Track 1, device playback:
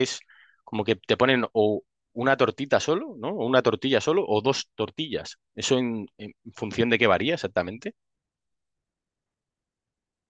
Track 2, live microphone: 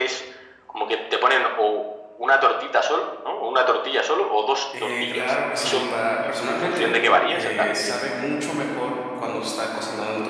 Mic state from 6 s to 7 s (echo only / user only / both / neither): both